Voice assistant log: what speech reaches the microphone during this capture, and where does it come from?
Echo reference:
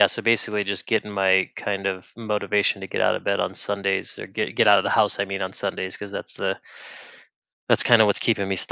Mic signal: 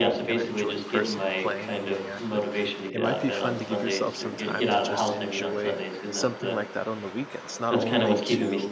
both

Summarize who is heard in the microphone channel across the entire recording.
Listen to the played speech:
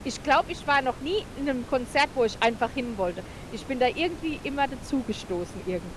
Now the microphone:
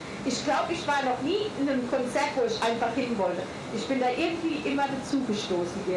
echo only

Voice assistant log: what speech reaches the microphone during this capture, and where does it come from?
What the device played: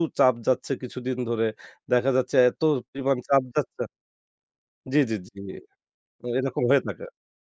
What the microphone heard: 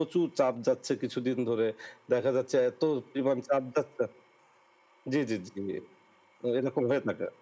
echo only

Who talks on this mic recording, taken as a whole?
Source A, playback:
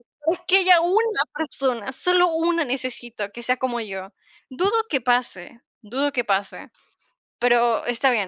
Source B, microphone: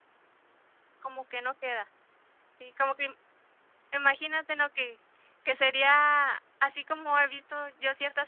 user only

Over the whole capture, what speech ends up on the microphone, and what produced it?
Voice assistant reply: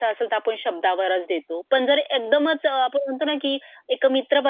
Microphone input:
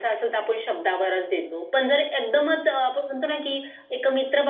echo only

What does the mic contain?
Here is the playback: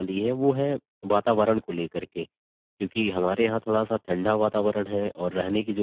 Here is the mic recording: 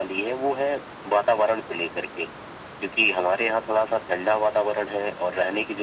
echo only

